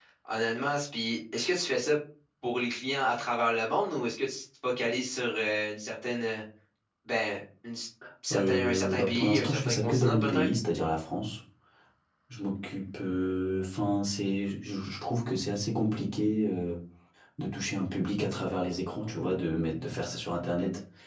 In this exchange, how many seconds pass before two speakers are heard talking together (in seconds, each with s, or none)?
8.3 s